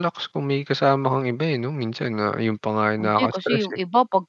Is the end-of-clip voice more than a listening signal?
Yes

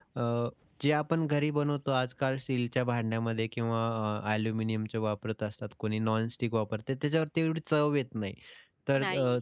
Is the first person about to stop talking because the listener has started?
No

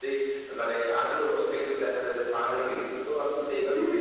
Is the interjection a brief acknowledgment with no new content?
No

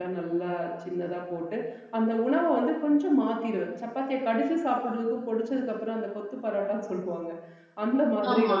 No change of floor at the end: Yes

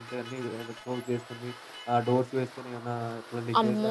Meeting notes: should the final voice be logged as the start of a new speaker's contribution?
Yes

